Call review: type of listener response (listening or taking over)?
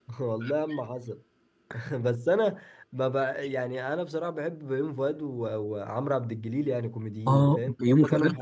taking over